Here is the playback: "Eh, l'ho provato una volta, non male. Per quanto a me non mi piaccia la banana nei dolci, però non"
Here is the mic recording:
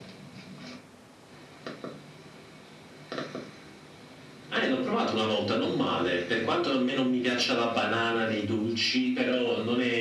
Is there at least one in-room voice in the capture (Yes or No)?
No